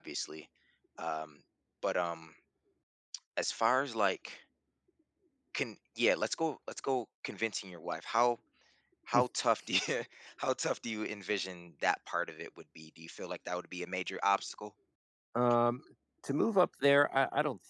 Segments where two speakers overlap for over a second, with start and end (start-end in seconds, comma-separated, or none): none